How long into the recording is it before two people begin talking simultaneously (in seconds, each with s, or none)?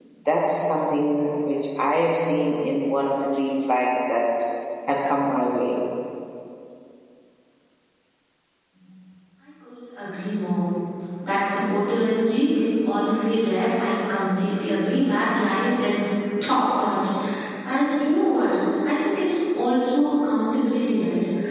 none